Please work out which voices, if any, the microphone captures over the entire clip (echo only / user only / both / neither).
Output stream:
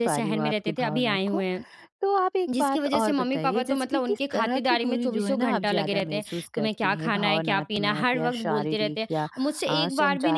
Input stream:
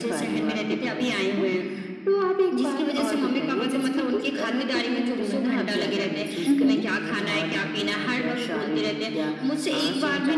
both